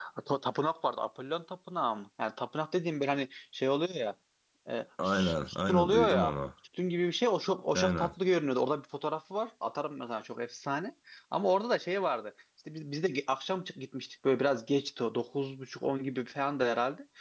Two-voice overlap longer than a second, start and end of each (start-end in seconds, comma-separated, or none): 5.0-6.3